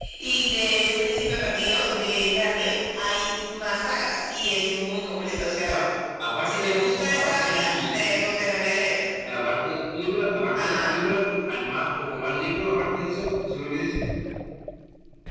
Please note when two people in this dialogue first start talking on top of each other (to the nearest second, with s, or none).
6 s